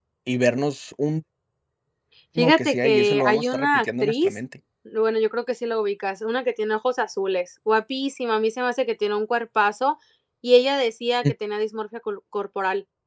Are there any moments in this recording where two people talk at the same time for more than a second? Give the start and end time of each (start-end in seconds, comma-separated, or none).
2.4-4.4